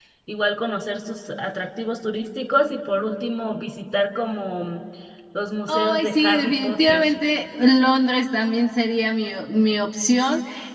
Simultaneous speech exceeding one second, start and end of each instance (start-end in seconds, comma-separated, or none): 5.7-7.0